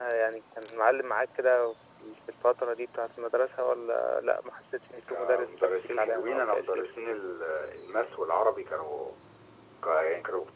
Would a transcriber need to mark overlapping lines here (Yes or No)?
Yes